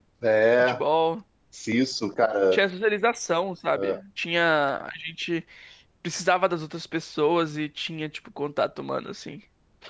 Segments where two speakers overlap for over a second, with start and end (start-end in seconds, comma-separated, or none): none